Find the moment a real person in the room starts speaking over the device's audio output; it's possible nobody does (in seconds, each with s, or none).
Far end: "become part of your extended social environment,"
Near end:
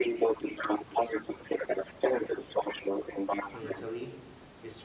3.5 s